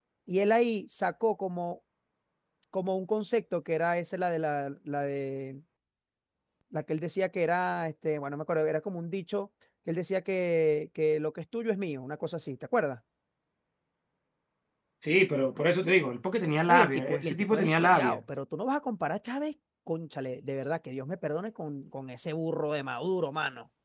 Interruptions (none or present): present